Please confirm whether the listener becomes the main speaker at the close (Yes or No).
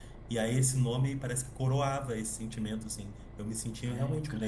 No